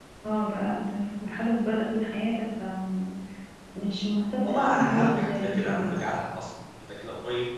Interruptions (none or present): present